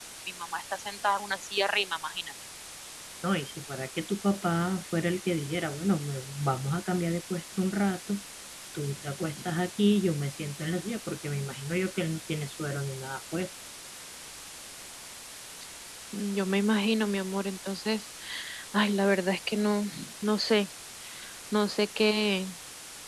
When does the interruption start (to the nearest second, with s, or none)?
none